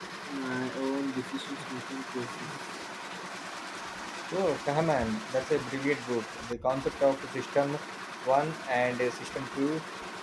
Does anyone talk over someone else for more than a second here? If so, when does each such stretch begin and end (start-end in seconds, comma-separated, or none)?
none